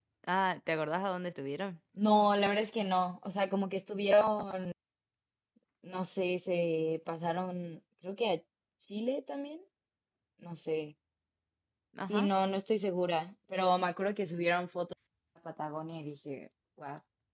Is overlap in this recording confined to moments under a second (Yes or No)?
Yes